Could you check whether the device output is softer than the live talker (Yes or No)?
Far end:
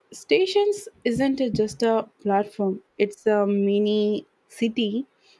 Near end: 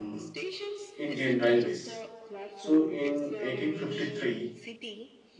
Yes